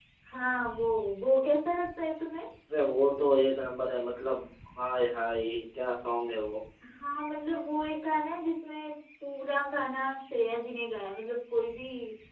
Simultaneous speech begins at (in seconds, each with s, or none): none